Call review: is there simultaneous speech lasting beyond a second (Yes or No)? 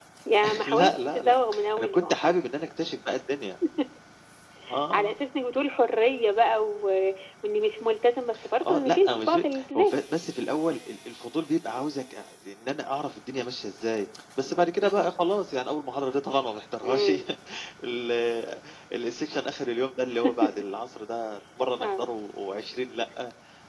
Yes